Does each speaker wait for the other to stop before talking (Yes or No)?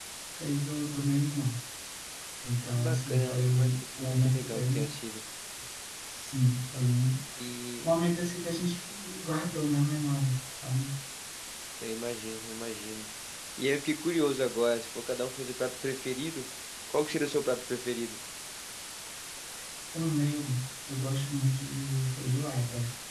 No